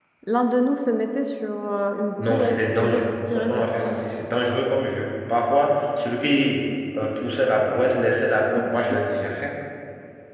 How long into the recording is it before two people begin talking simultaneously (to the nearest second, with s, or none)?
2 s